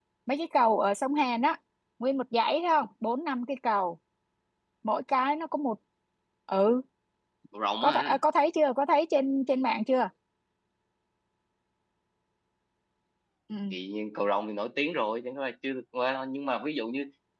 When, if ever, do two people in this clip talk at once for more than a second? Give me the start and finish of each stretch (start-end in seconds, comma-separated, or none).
none